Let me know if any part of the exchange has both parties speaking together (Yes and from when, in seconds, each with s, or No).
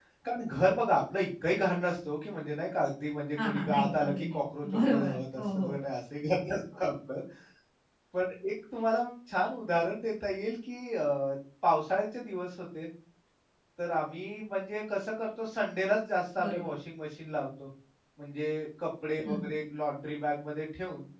Yes, from 3.4 s